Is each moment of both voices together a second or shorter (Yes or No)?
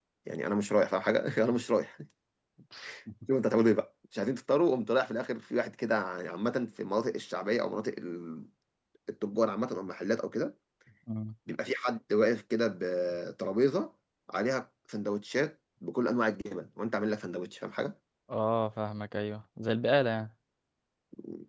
Yes